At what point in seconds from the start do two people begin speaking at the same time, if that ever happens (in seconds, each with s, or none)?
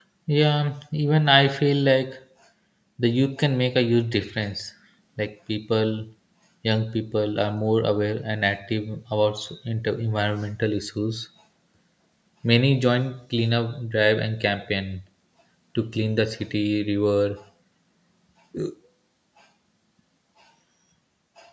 none